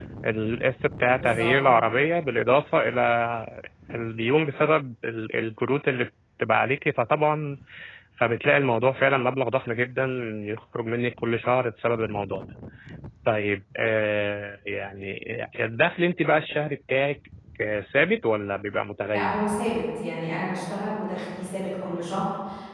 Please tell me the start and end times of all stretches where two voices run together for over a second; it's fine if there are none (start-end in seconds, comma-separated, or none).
none